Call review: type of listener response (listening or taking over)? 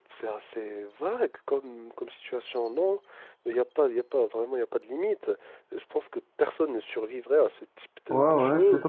taking over